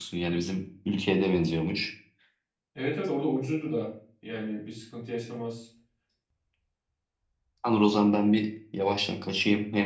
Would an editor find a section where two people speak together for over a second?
No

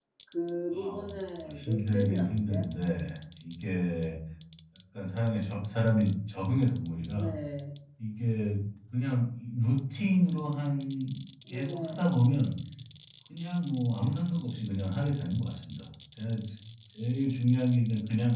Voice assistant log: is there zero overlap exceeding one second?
No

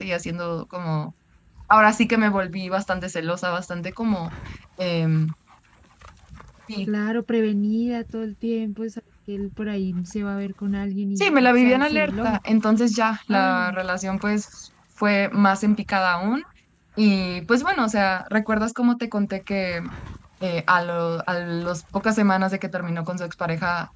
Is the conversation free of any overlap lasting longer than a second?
No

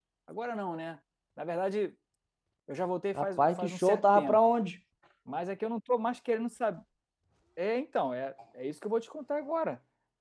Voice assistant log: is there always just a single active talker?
No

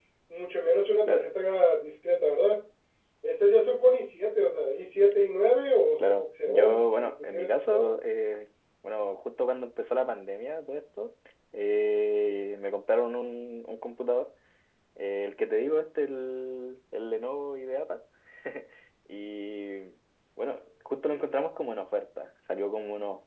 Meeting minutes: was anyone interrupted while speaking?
Yes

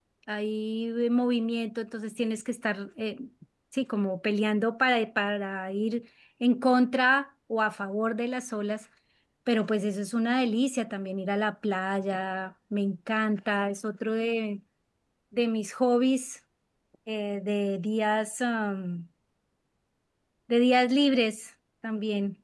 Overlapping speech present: No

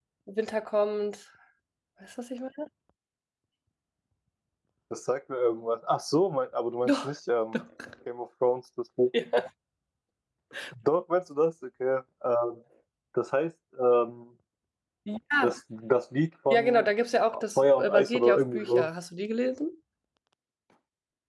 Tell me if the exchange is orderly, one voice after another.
No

